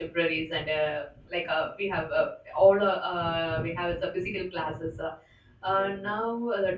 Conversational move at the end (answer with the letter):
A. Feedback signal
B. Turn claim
A